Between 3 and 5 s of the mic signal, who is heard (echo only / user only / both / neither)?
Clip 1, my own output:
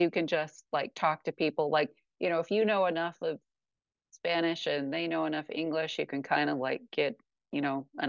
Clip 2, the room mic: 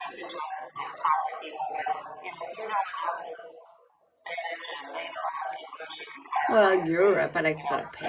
echo only